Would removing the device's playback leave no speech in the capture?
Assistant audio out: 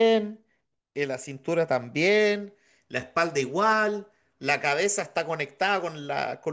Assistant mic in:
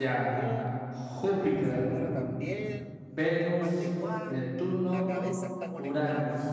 No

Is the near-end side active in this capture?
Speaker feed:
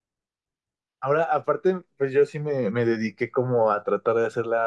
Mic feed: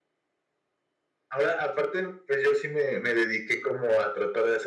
No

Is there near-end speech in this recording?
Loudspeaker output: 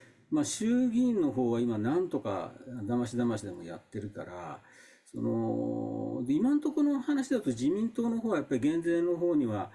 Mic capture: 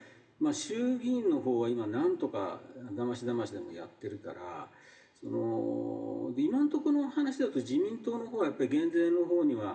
No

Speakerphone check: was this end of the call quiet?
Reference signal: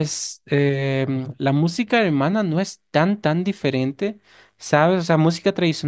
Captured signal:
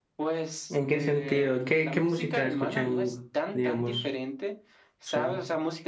No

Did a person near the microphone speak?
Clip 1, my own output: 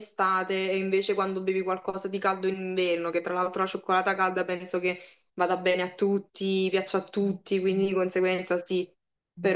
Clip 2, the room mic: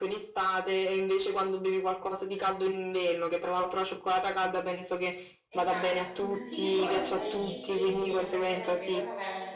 Yes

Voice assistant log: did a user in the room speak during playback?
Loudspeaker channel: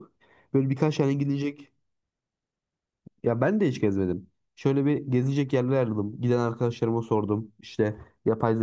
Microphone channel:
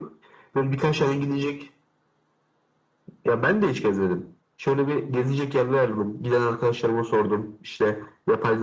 No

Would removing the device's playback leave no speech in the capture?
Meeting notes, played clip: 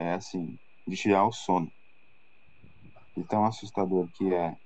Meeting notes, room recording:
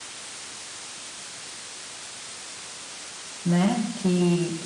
No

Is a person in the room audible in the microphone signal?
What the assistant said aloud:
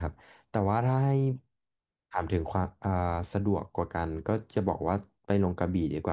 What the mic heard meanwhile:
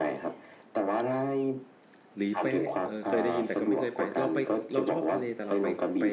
Yes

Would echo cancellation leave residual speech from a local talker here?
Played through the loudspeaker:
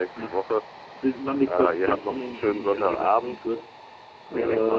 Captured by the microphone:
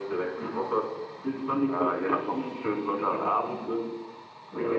No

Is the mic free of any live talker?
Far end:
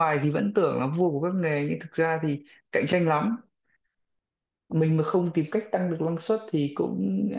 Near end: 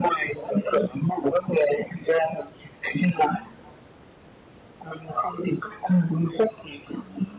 Yes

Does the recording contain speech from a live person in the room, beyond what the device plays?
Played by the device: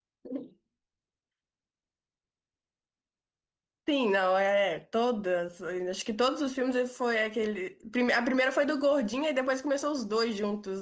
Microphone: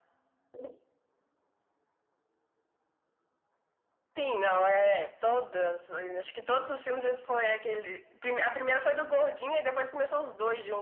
No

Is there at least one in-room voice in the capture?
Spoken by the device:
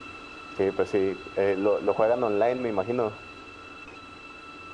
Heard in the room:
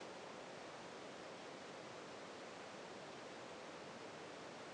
No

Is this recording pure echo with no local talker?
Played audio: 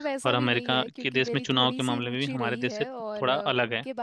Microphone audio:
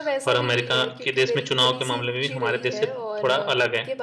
Yes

